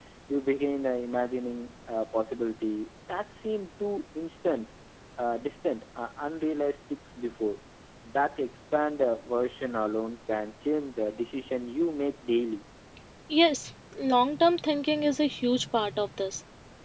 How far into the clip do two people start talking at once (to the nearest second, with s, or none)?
none